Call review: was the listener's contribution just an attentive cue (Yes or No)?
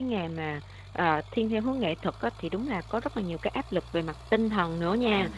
Yes